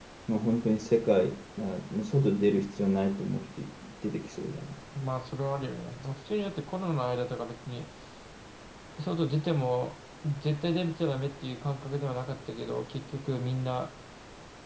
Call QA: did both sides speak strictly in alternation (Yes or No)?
Yes